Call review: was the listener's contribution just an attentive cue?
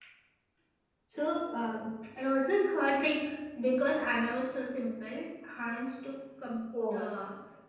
Yes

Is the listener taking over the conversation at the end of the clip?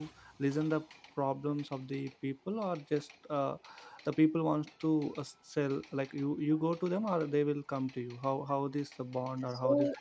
Yes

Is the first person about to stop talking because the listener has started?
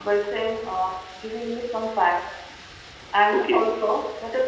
No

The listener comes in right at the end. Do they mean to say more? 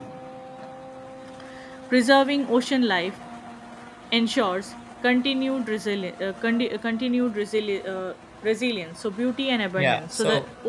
Yes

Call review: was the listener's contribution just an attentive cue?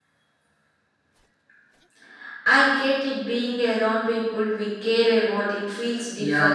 No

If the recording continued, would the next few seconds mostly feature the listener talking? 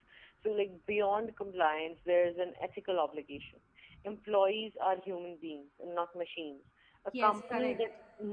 No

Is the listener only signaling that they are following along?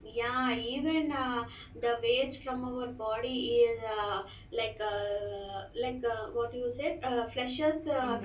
Yes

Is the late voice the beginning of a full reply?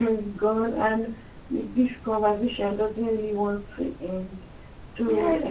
Yes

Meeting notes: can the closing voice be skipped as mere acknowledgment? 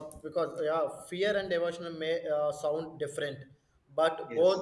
Yes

